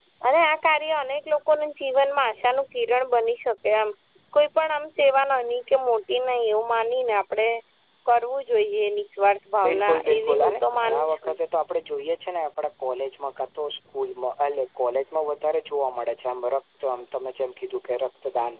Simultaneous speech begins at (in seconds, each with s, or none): 9.6 s